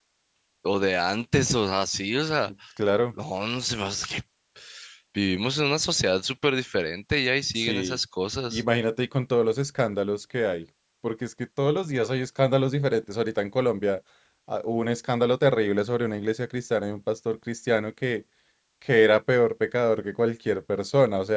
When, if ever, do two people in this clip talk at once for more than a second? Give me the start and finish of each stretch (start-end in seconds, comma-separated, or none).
none